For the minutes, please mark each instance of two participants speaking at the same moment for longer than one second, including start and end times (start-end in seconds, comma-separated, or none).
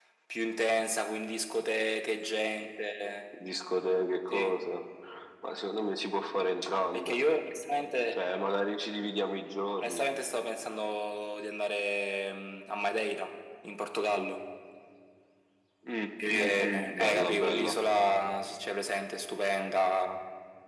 16.3-17.7